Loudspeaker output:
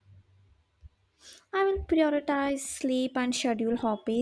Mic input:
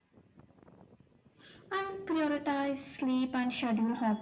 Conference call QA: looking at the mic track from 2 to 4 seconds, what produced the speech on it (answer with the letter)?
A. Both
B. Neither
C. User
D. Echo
D